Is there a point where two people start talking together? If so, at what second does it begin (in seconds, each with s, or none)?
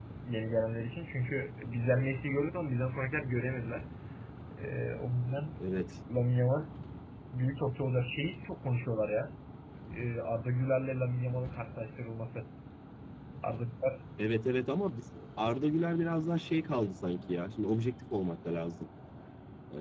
none